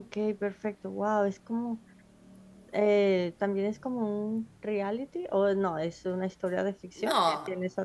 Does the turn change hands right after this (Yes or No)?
Yes